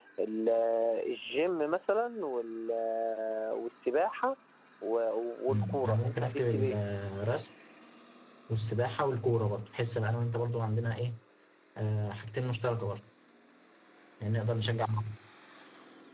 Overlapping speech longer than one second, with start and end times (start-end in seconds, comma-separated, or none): 5.5-6.8